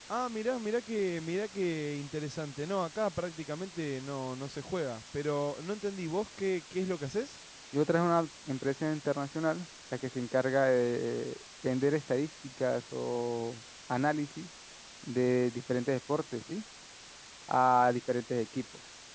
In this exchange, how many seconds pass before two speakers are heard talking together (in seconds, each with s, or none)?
none